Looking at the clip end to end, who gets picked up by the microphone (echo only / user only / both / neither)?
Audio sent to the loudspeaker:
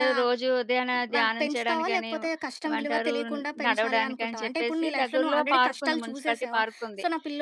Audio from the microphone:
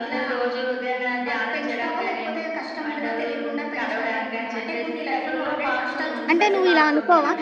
both